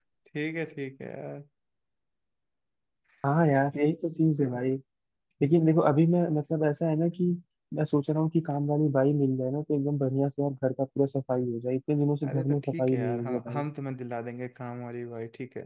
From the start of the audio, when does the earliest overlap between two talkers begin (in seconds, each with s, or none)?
12.2 s